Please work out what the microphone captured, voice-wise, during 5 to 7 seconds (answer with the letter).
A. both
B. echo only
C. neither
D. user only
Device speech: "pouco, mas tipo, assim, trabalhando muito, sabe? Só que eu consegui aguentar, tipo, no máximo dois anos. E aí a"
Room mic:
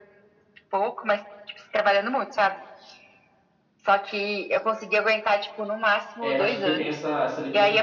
A